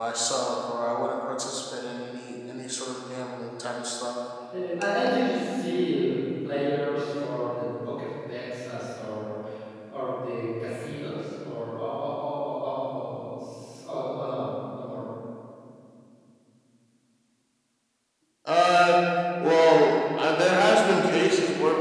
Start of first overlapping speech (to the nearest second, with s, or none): none